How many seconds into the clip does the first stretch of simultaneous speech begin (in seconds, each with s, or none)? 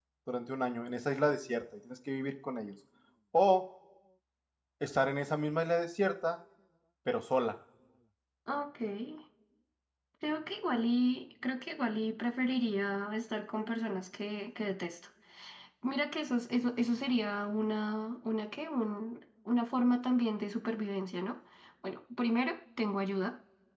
none